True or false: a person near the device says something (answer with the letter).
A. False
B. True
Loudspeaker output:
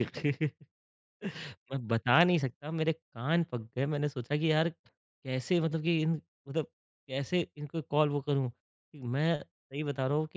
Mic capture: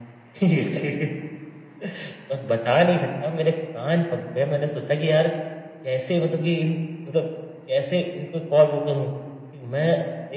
A